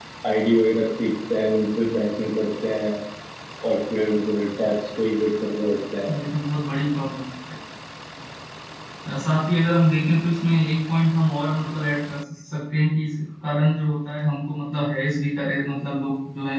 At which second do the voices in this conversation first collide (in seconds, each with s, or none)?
none